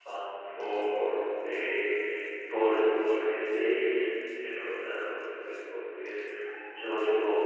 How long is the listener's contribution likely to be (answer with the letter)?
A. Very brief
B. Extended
A